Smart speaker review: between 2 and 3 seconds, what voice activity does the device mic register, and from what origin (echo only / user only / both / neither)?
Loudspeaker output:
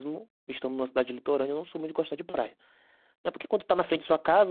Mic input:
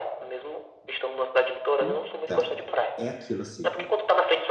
both